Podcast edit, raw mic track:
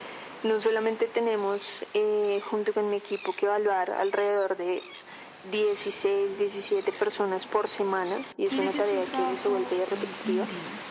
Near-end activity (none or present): present